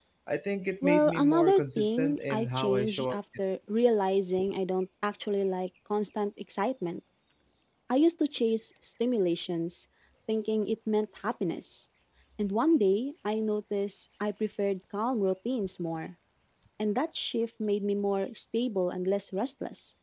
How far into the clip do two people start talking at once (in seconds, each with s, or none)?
0.8 s